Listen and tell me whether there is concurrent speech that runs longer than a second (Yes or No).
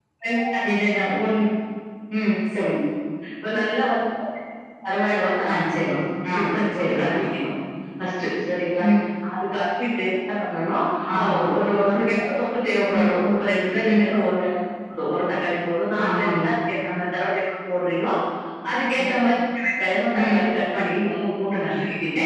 No